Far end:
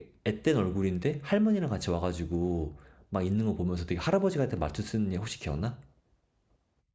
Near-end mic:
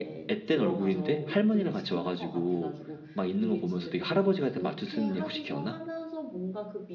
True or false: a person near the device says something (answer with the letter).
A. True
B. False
A